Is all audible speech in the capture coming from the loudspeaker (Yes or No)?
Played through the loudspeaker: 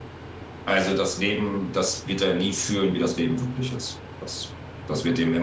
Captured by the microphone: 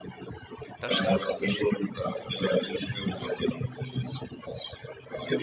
No